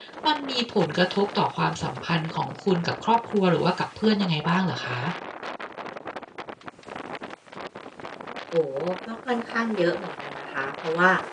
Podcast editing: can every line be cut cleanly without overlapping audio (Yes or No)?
Yes